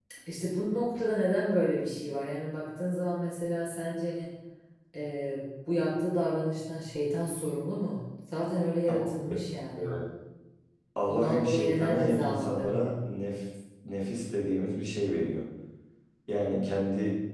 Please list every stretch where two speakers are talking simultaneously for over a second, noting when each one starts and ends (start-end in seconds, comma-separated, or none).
11.1-12.9